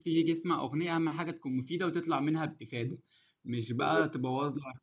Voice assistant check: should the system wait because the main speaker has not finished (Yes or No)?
Yes